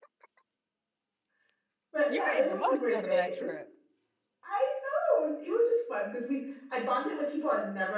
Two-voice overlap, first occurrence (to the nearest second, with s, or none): 2 s